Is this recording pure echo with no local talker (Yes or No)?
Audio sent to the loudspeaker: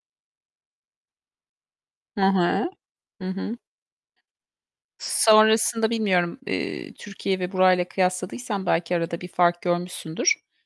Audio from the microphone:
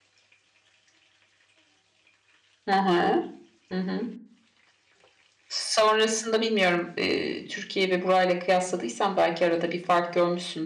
Yes